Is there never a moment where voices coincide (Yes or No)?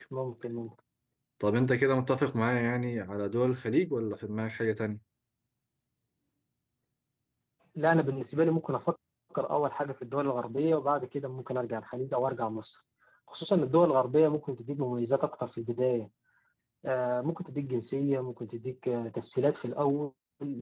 Yes